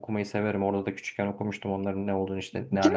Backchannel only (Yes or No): No